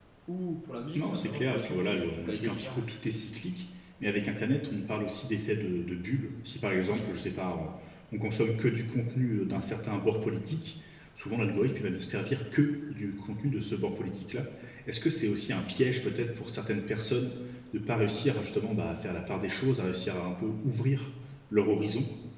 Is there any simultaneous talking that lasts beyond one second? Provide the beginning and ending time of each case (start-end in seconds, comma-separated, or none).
0.9-2.9